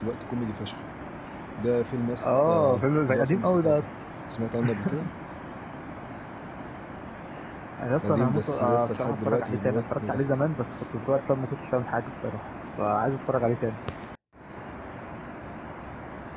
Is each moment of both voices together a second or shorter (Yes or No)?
No